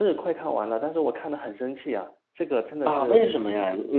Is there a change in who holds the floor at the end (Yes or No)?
Yes